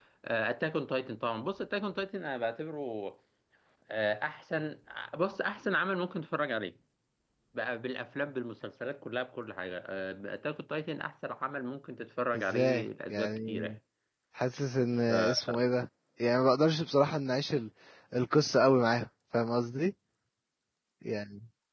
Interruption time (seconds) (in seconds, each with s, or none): 12.4 s